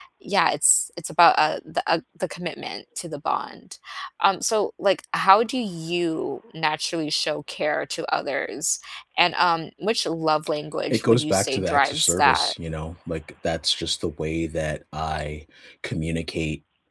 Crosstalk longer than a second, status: present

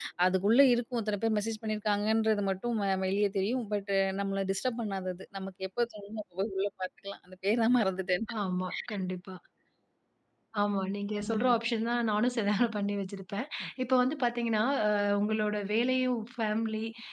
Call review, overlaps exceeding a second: none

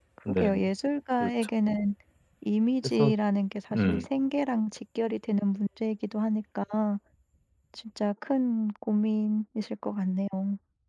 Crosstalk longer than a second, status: none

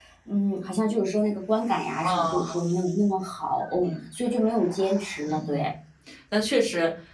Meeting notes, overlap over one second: none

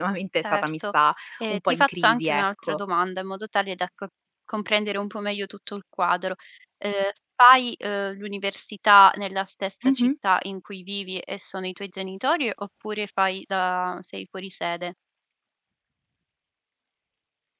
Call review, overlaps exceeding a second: present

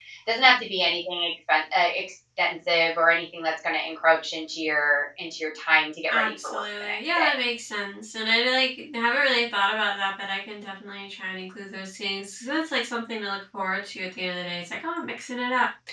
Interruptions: present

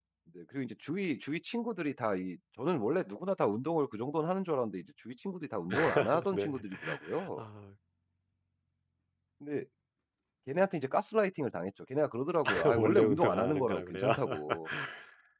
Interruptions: present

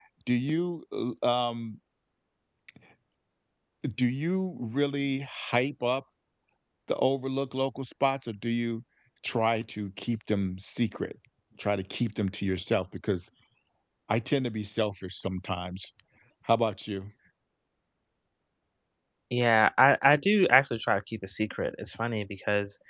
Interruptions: none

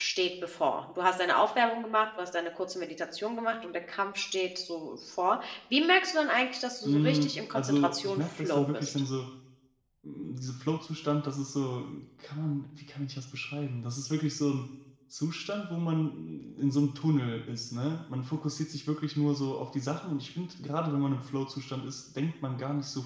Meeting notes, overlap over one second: present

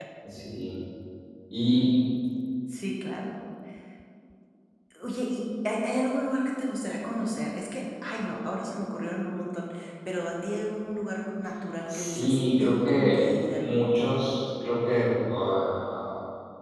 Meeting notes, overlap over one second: present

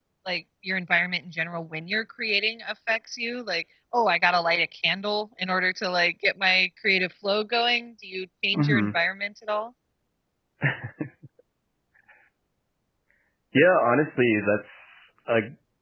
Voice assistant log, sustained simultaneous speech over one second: none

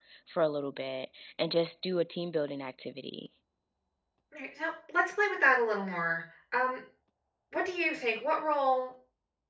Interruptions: none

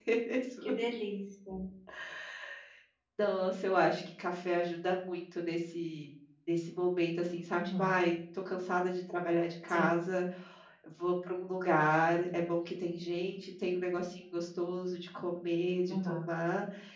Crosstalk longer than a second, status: none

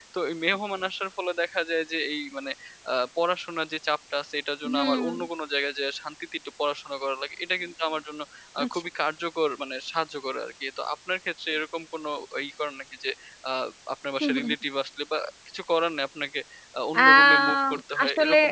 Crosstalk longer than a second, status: present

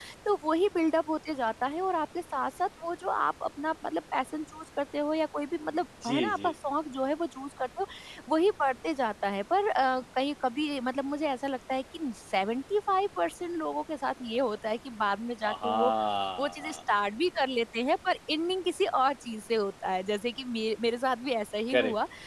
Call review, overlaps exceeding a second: none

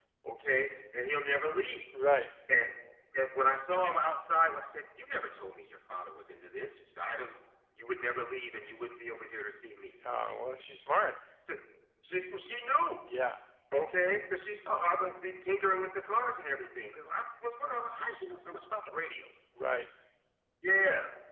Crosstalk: none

